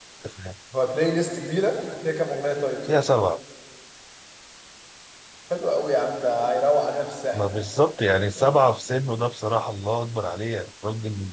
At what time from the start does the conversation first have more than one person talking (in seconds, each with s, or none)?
none